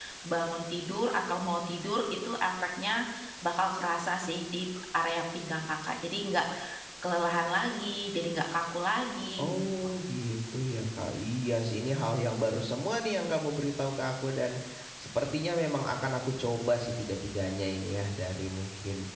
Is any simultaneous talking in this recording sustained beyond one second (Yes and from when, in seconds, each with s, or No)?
No